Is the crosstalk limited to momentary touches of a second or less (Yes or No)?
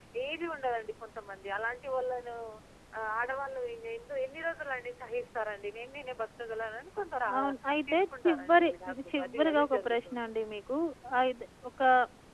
No